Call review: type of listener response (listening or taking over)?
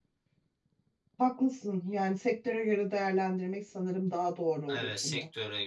taking over